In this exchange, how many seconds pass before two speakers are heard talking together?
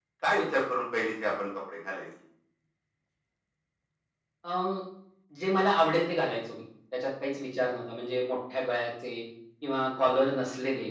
none

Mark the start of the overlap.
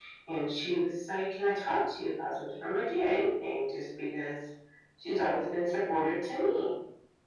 none

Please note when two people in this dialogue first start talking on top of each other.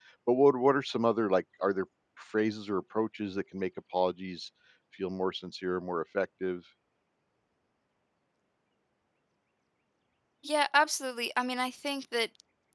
none

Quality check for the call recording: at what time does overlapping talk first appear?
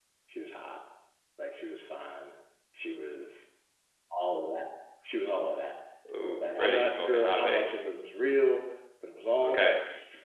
6.4 s

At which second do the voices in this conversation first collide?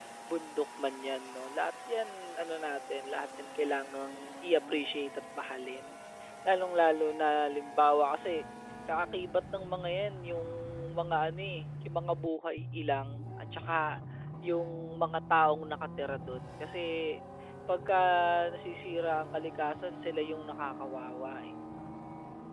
none

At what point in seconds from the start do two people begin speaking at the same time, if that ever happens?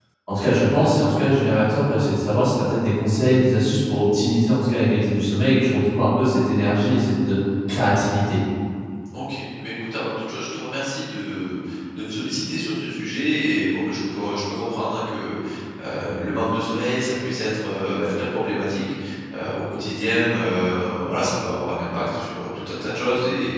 none

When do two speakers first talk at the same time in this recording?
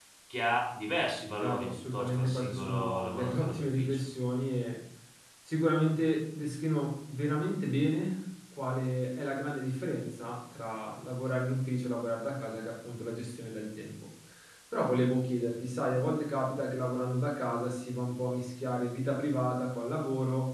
1.4 s

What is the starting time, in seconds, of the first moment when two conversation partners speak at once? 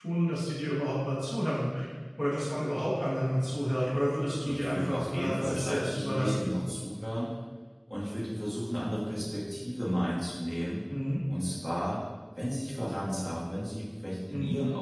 4.3 s

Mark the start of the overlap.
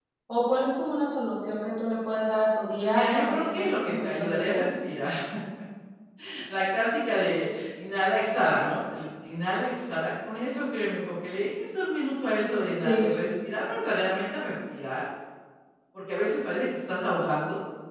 2.8 s

